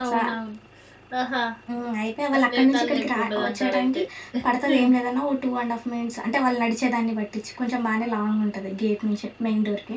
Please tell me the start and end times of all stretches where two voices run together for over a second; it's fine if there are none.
2.5-4.0

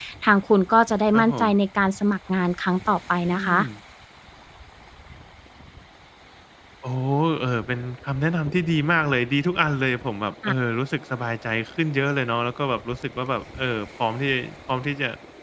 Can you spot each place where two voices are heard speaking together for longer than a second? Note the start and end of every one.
none

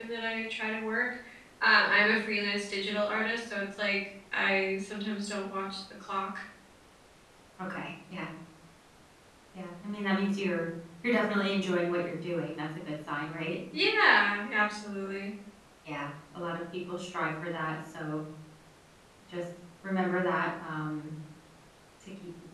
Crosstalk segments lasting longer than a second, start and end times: none

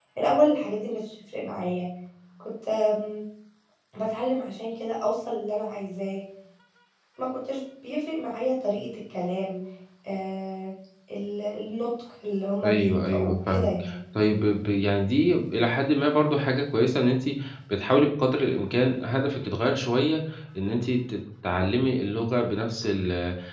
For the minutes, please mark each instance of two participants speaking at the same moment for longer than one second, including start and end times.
12.6-14.0

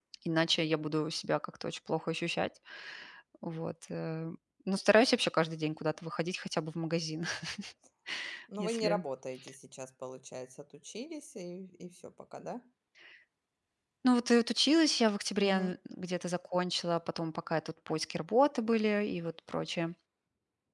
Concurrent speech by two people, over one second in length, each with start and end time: none

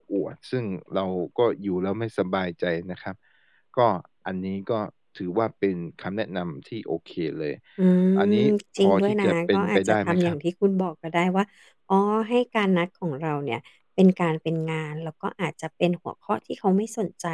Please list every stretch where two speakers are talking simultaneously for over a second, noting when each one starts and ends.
8.4-10.4

